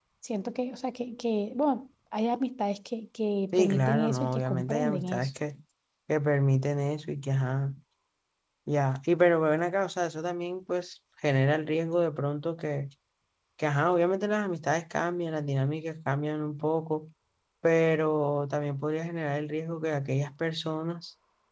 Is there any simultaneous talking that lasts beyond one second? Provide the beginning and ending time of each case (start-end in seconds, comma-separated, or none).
3.5-5.3